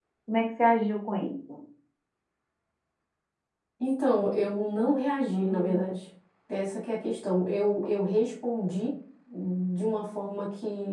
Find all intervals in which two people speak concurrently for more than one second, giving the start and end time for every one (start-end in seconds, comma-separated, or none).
none